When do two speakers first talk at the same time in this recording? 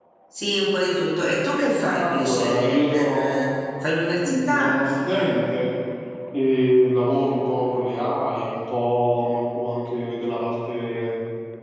1.8 s

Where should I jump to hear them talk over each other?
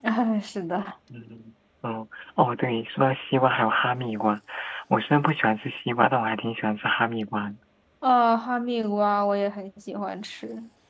none

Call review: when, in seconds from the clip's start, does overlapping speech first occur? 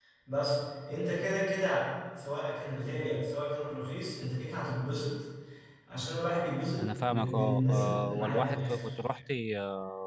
6.8 s

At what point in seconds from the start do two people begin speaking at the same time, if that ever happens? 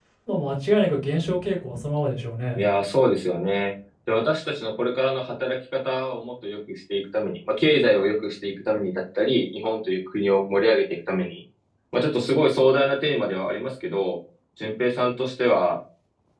none

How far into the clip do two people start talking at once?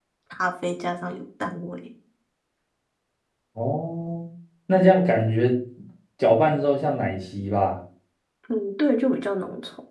none

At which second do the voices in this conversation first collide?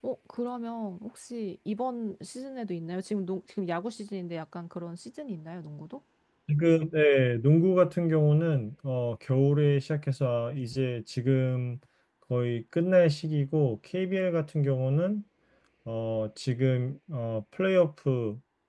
none

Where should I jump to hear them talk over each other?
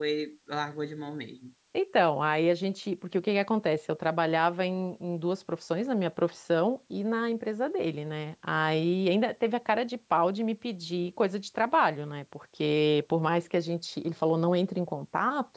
none

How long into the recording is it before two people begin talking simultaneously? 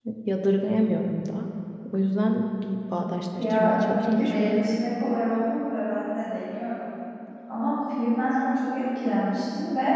3.4 s

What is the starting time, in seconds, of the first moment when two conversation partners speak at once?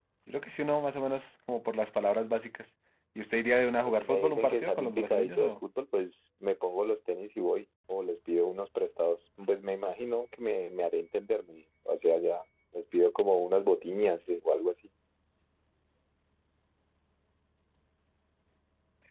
3.8 s

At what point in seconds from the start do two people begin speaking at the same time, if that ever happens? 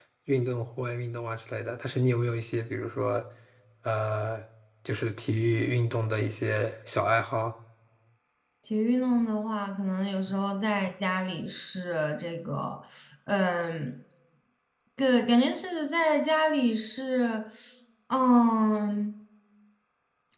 none

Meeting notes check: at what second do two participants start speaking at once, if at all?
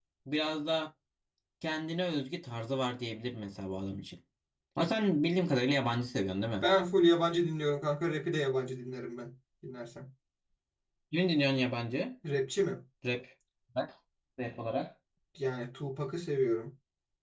none

